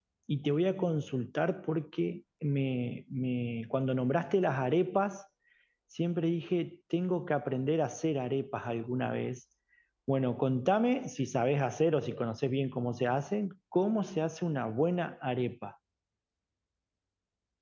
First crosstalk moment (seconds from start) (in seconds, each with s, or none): none